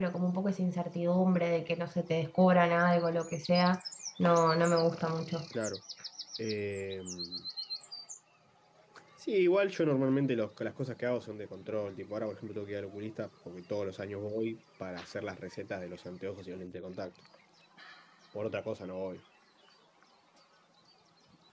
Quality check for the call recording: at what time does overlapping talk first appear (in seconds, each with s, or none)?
none